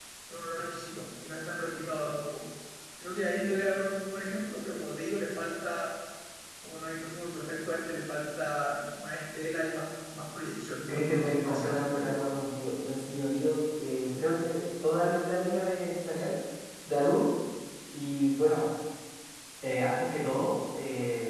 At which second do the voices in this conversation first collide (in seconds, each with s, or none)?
10.9 s